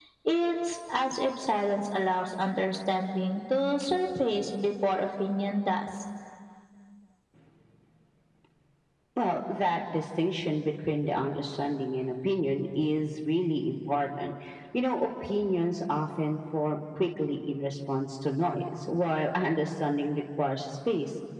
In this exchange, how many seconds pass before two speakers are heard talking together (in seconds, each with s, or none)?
none